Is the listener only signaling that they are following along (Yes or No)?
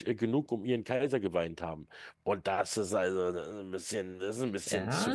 No